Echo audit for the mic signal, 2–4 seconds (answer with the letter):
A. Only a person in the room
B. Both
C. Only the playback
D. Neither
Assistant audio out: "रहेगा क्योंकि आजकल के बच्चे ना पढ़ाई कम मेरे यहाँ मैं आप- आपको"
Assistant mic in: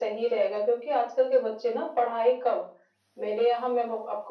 C